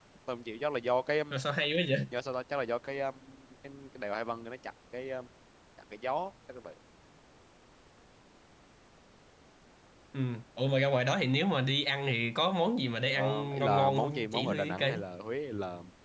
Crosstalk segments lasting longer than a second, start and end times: 13.1-15.0

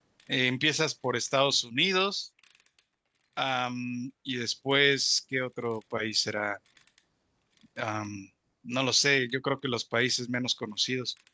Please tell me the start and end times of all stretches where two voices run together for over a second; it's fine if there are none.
none

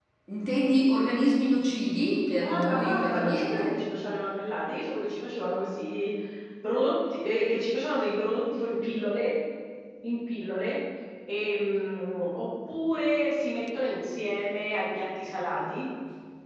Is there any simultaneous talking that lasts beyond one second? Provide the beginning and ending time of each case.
2.4-3.8

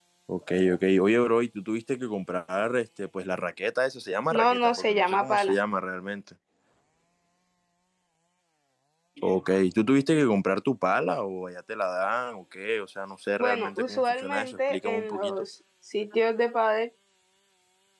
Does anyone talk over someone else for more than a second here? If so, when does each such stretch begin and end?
4.3-5.6, 13.4-15.3

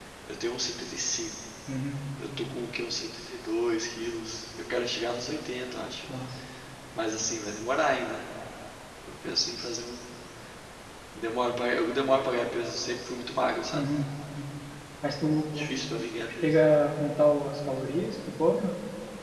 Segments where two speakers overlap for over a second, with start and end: none

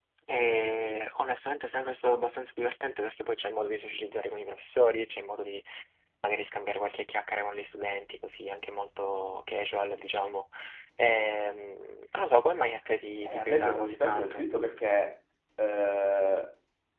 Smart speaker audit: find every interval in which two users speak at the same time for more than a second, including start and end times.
13.2-14.5

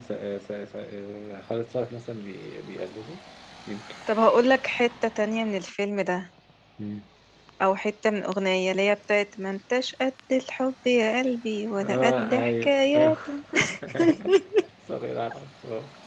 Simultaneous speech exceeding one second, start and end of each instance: 11.8-13.1

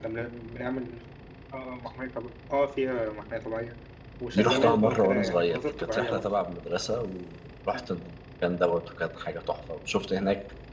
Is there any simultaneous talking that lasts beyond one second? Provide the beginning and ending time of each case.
4.3-6.2

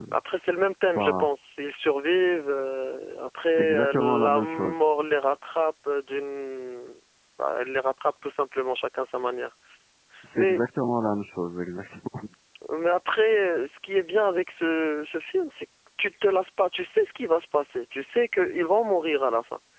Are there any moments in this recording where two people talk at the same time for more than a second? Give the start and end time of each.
3.4-4.8

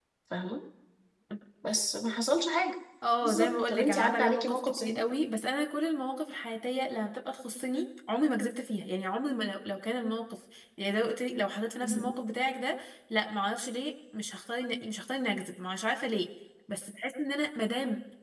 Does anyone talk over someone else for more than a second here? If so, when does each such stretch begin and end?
3.2-5.0

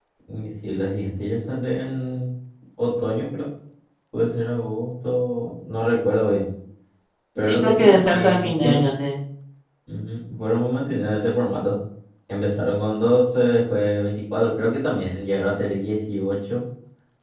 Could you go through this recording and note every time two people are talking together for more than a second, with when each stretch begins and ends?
7.5-8.8

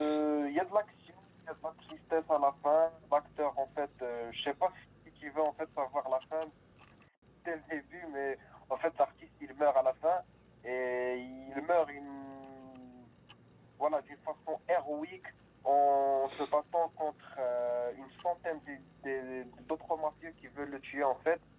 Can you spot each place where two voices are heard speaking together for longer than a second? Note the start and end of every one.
none

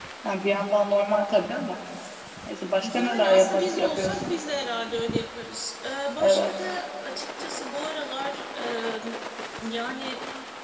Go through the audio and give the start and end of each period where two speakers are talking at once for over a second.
2.8-4.3

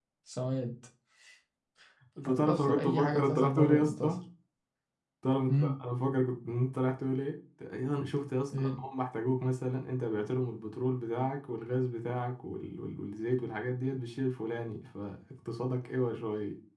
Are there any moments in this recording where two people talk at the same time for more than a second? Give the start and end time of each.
2.3-4.2

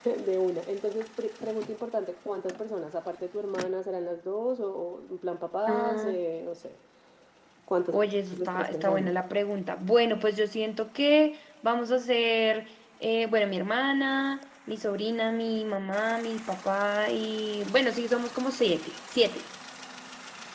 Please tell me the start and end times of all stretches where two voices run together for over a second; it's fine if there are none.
7.9-9.1

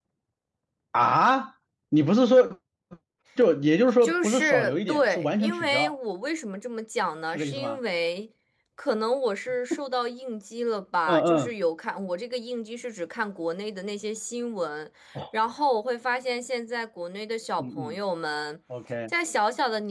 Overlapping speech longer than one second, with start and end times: 4.0-5.9

